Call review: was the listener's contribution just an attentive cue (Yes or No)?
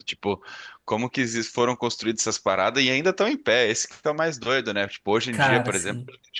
Yes